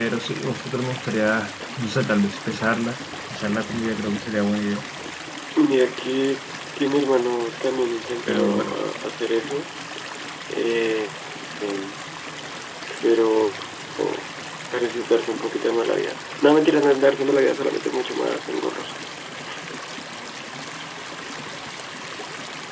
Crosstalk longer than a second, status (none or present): none